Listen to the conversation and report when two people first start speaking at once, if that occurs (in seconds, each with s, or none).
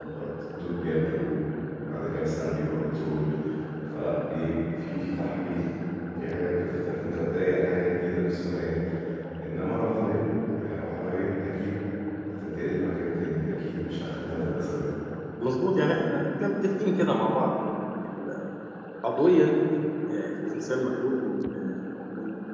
none